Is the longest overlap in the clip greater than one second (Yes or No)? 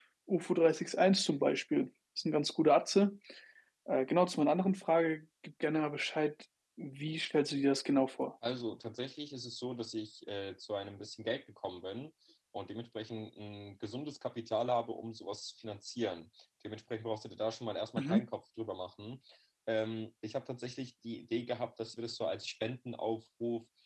No